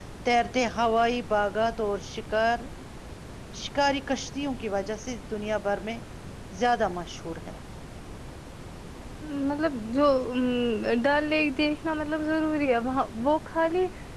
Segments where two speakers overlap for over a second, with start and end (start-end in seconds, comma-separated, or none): none